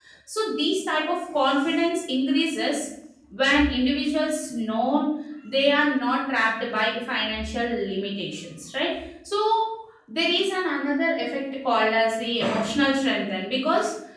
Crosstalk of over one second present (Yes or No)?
No